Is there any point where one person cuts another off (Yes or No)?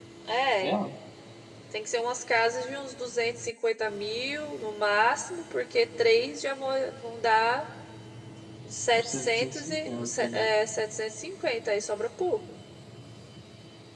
Yes